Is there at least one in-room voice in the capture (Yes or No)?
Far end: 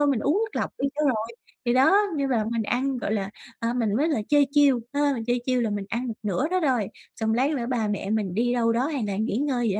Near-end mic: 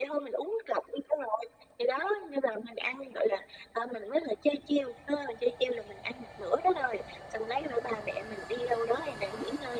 No